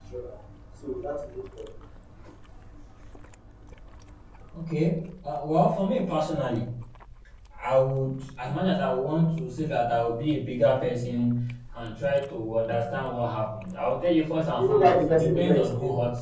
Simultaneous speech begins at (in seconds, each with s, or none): 14.6 s